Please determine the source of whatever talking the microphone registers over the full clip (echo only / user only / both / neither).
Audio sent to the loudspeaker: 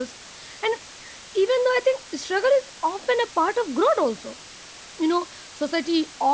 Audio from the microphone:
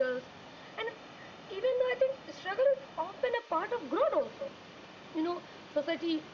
echo only